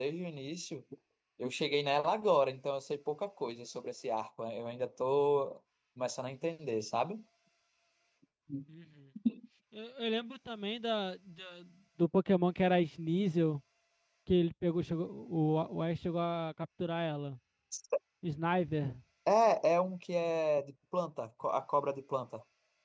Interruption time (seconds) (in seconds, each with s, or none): none